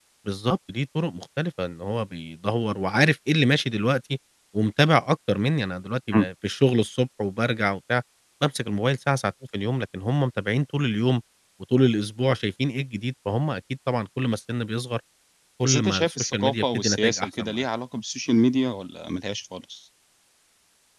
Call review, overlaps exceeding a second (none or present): present